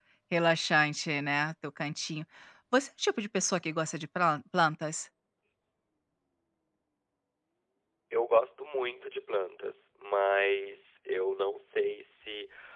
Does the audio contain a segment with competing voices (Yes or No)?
No